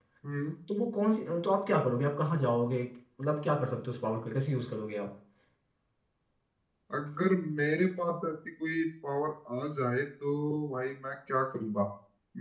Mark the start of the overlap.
none

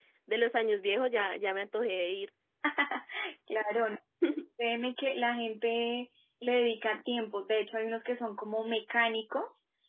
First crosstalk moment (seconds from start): none

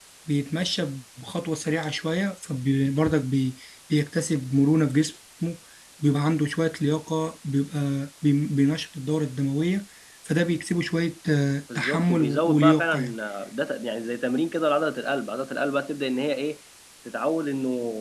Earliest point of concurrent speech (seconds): 12 s

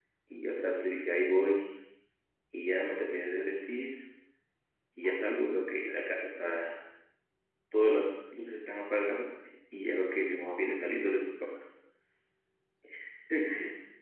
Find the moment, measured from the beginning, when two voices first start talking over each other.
none

